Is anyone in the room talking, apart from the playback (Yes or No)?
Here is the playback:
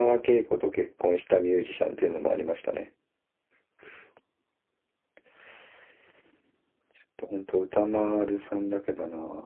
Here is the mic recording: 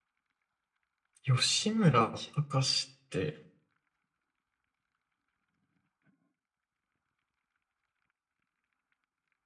Yes